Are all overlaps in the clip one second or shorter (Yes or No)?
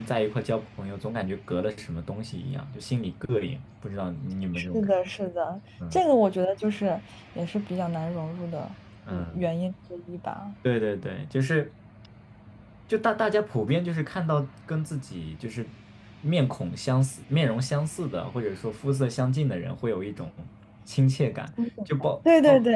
Yes